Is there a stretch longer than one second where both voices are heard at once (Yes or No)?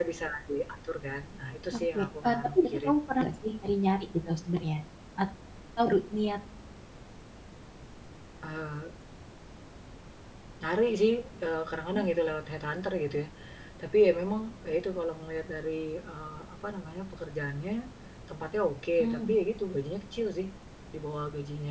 Yes